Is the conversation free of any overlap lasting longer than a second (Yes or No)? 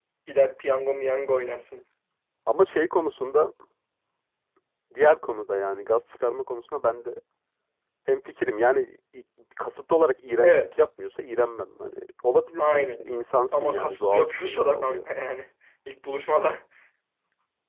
No